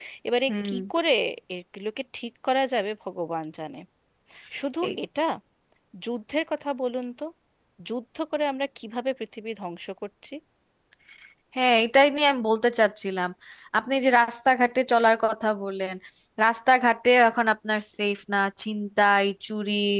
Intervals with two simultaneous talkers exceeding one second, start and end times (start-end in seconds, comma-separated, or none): none